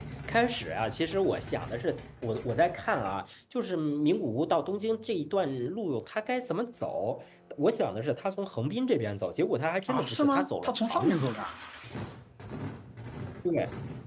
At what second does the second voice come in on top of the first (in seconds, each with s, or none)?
9.8 s